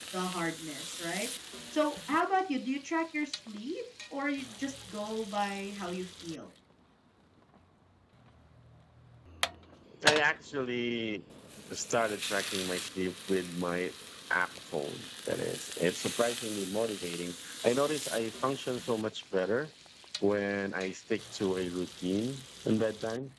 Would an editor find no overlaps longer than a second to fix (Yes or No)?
Yes